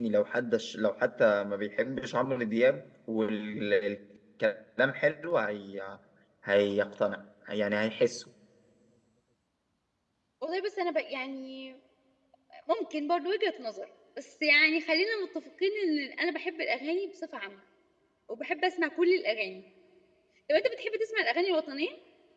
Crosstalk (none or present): none